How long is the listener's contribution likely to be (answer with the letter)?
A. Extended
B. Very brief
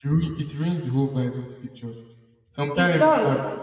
B